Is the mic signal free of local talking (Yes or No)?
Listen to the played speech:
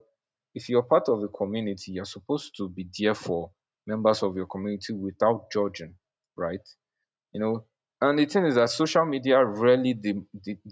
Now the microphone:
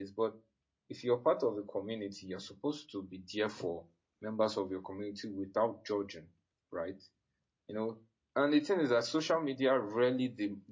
Yes